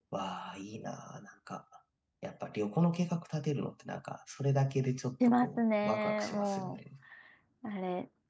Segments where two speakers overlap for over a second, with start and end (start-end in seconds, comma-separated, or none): 5.2-6.8